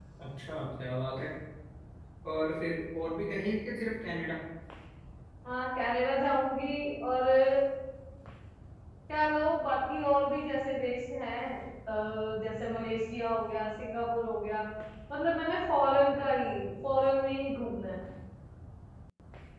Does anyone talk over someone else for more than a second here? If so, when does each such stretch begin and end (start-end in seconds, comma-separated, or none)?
none